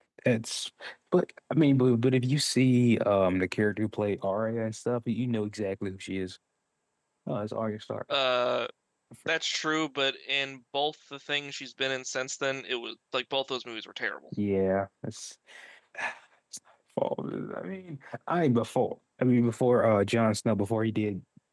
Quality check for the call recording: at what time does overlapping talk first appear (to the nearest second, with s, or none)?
none